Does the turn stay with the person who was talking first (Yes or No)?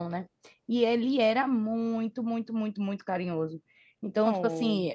Yes